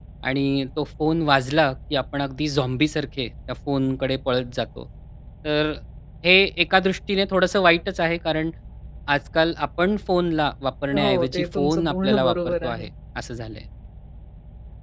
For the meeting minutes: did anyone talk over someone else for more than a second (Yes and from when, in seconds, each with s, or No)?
Yes, from 10.9 s